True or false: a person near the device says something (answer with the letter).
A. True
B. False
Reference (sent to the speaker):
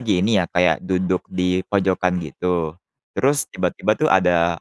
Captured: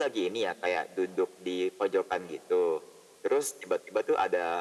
B